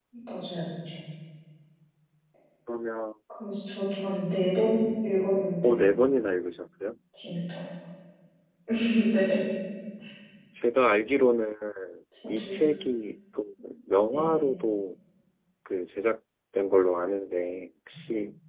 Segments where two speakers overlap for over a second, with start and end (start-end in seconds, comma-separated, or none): none